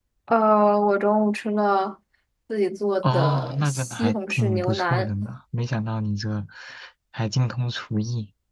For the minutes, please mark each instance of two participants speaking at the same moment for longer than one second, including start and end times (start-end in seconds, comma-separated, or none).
3.0-5.1